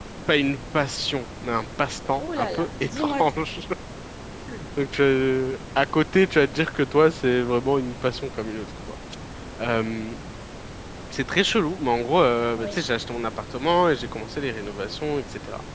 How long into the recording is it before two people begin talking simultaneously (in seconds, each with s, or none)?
2.2 s